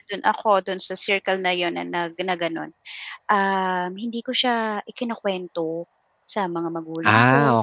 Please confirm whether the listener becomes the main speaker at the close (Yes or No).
No